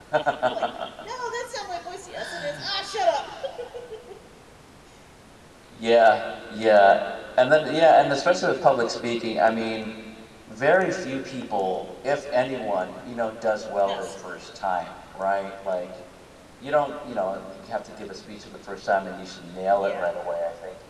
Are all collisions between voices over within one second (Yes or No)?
Yes